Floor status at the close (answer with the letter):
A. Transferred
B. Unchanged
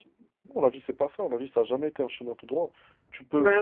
B